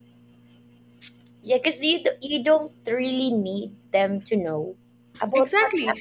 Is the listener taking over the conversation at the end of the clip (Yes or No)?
Yes